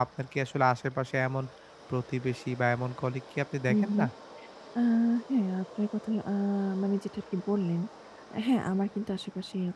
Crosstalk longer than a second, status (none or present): none